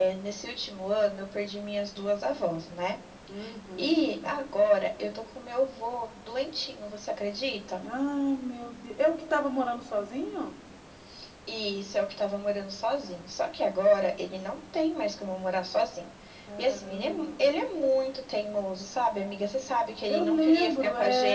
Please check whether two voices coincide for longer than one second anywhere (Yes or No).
Yes